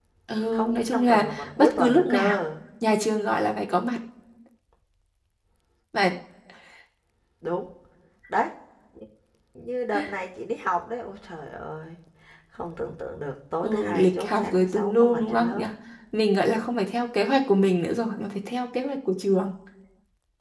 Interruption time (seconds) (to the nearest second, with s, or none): 1 s